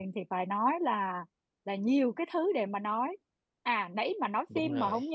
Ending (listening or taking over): listening